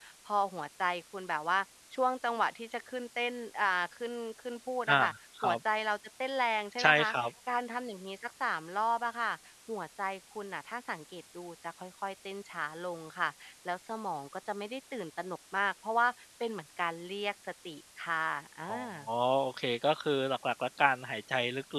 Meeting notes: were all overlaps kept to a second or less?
Yes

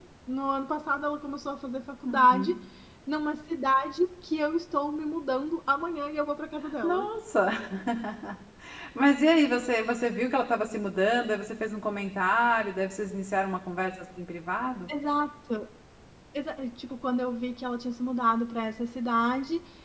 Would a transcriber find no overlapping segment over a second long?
Yes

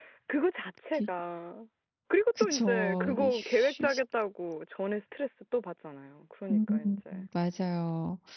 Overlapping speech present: Yes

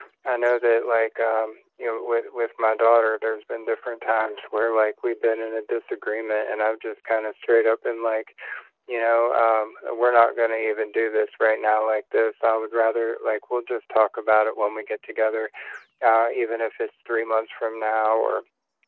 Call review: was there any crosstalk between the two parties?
No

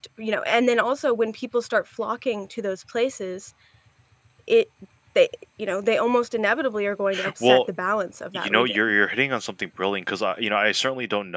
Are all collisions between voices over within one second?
Yes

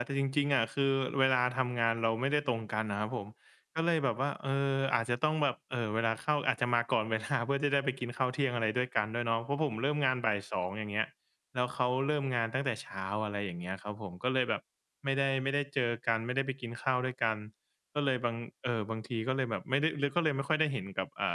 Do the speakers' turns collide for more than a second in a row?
No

